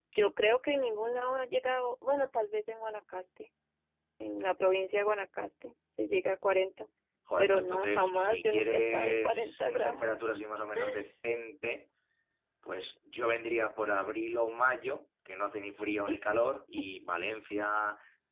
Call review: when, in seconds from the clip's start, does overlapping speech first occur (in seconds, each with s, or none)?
7.4 s